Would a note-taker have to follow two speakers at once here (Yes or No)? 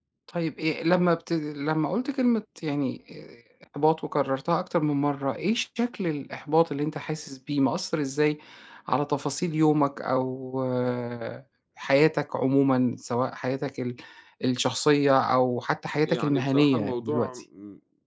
Yes